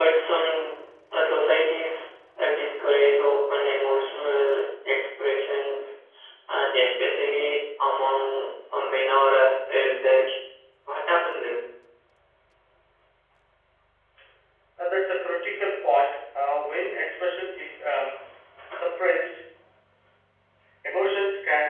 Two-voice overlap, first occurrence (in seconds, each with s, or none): none